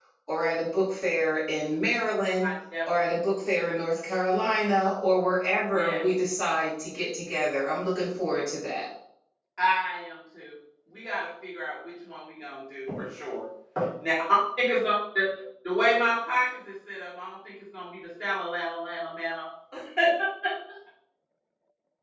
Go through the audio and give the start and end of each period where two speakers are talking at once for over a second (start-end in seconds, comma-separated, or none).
none